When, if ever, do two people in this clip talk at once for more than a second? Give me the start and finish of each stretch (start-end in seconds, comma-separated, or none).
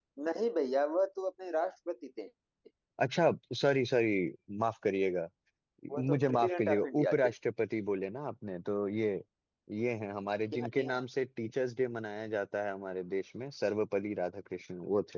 6.1-7.3